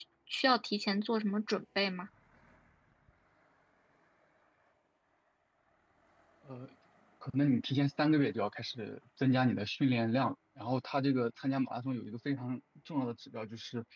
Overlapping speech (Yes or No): No